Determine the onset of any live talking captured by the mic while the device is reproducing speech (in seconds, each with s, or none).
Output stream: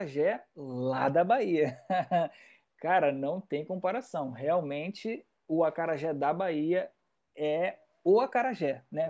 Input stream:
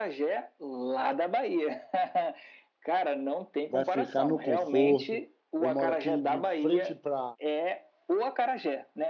3.7 s